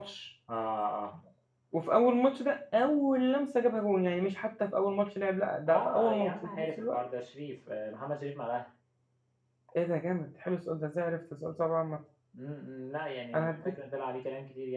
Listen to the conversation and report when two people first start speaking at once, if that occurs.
5.7 s

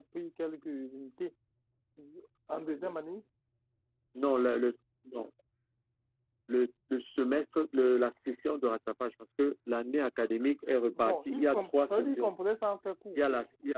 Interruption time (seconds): 10.9 s

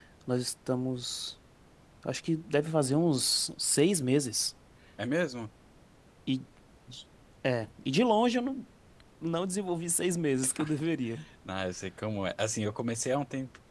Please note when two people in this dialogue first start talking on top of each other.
none

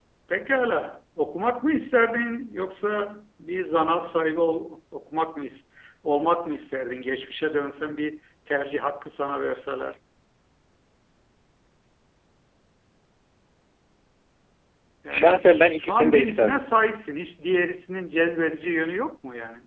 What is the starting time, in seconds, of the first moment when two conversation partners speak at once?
15.1 s

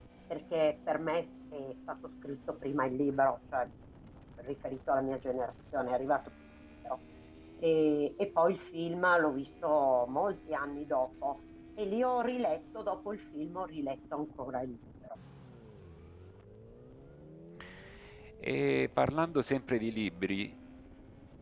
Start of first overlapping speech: none

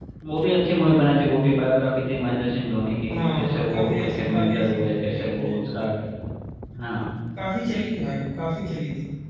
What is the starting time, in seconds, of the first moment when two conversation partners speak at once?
3.1 s

